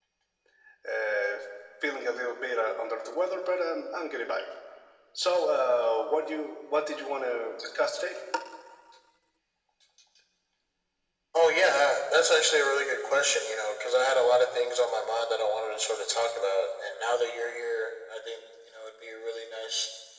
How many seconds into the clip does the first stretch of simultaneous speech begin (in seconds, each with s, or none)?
none